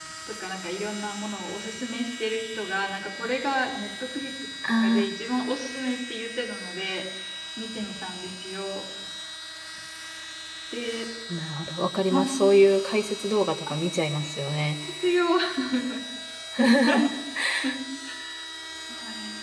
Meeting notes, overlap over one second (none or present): none